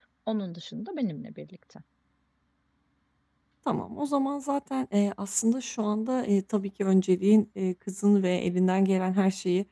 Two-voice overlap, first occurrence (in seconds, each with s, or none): none